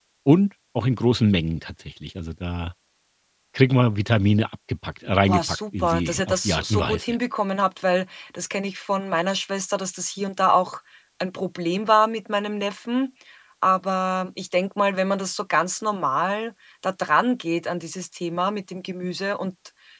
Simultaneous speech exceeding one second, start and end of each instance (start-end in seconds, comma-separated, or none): 5.2-7.2